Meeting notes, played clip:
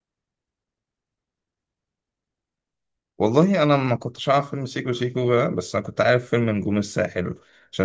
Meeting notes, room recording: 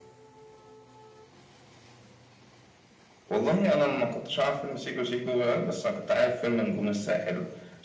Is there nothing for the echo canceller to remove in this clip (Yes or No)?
No